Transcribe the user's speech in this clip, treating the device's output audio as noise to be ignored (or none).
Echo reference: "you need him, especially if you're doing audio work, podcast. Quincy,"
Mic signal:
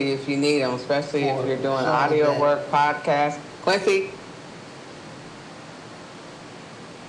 for showing that.